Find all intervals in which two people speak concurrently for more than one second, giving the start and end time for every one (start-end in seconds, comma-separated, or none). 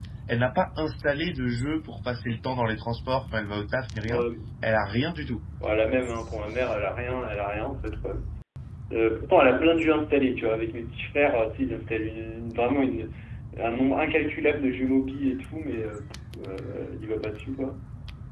none